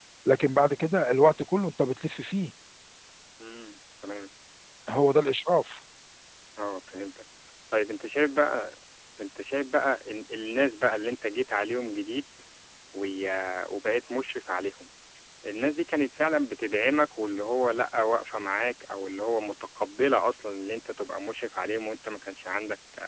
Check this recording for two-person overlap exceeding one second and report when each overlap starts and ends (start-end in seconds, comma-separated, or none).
none